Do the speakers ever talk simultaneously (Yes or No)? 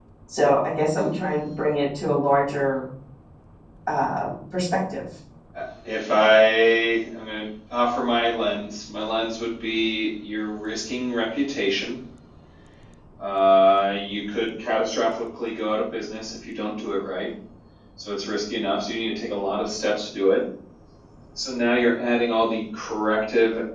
No